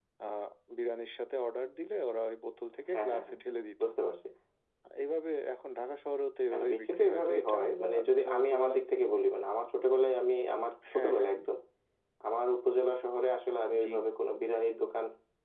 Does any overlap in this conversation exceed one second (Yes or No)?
Yes